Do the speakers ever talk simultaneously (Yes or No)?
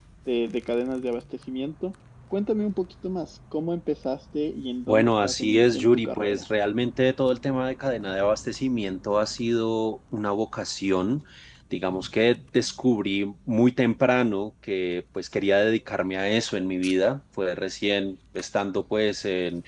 Yes